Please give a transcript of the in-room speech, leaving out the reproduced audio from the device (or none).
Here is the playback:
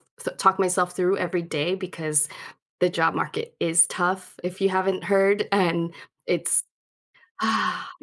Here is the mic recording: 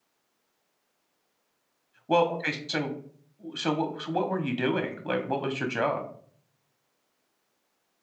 Well, okay, so so what so what were you doing? Like, what was your job?